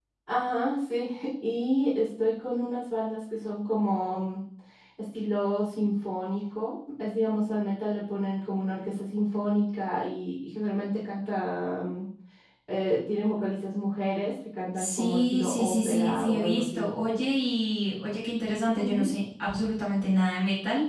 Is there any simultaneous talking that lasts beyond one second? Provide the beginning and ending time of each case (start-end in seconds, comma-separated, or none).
14.8-16.9